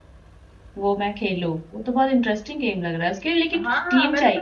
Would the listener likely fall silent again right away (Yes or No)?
No